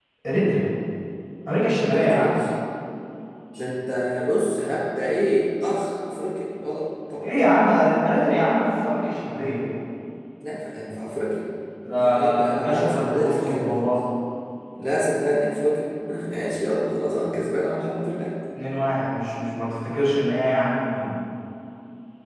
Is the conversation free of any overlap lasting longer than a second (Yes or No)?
No